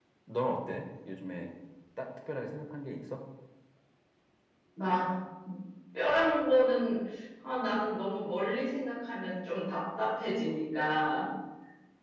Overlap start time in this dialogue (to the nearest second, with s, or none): none